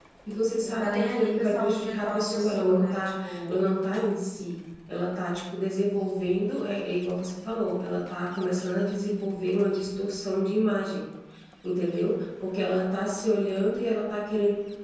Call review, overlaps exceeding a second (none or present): present